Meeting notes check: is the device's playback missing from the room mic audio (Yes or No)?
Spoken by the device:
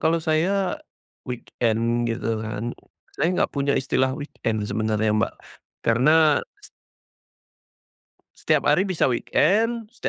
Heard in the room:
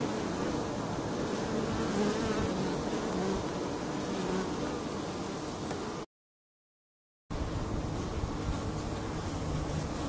Yes